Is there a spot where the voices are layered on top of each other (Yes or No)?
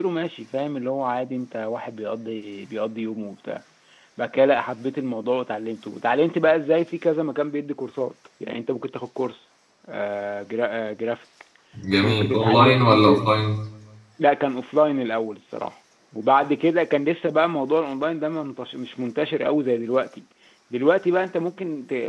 Yes